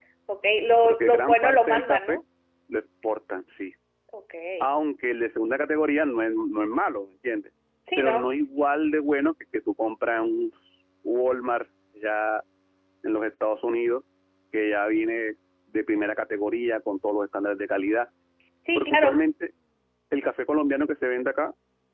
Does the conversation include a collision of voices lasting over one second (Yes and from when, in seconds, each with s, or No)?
Yes, from 0.8 s